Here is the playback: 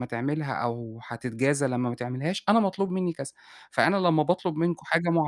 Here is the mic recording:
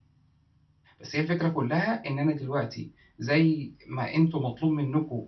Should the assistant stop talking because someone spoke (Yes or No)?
Yes